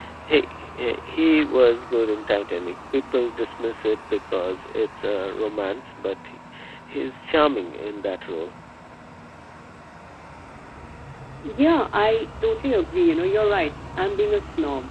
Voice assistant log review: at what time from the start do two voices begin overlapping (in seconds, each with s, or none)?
none